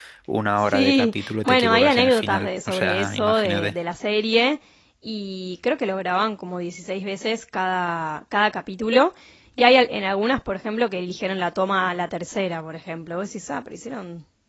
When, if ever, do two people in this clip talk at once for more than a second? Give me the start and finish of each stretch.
0.6-3.7

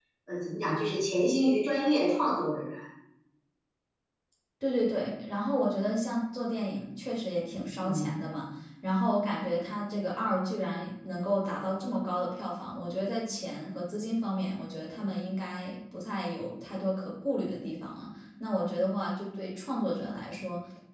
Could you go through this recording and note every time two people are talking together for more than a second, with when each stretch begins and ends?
none

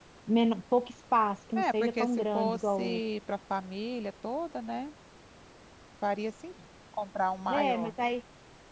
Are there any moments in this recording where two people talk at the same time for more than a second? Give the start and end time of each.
1.6-3.0

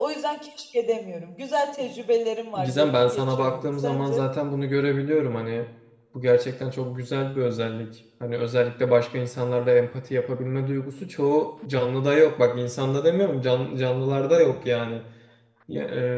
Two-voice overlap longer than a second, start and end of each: 2.6-4.3

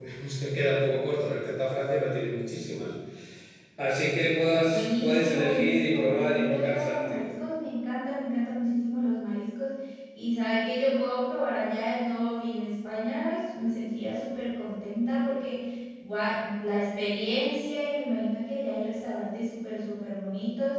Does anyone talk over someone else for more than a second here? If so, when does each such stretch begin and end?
4.6-7.2

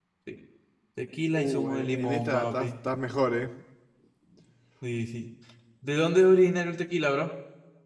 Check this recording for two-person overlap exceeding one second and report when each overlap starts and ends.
1.3-2.7

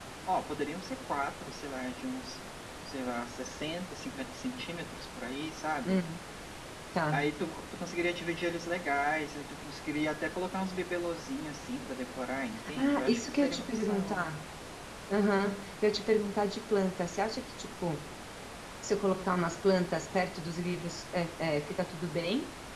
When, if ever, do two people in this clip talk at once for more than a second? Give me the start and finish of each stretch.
12.7-14.3

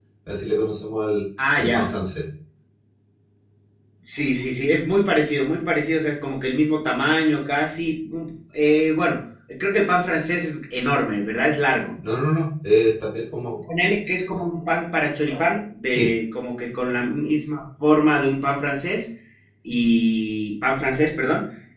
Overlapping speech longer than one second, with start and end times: none

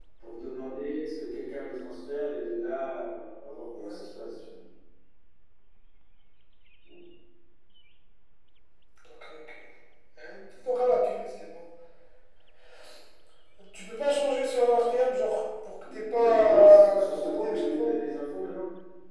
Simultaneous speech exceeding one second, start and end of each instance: 15.9-17.9

